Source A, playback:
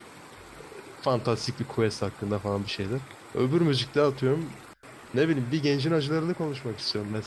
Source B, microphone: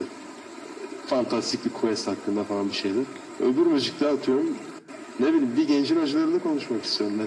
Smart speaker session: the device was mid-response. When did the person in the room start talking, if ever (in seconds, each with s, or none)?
none